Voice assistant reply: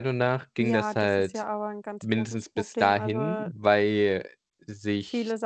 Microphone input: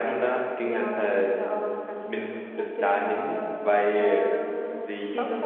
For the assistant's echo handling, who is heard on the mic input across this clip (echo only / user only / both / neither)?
both